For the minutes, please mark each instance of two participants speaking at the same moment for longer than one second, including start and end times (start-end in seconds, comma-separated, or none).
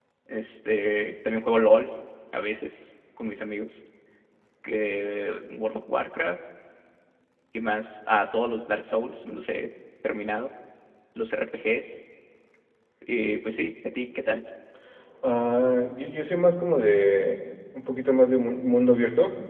none